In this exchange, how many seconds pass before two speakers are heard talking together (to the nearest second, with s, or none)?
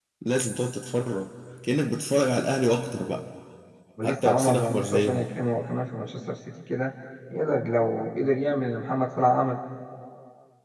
4 s